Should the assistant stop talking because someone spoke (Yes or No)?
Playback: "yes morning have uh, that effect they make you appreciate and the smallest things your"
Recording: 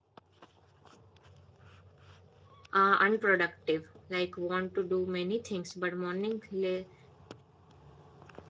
Yes